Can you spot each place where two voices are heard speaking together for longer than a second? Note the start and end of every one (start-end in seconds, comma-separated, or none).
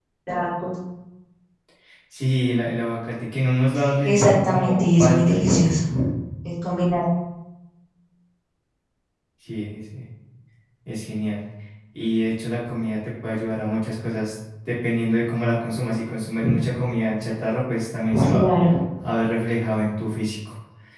4.0-5.8